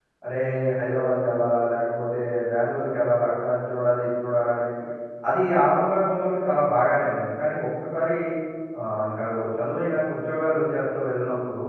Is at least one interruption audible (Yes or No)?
No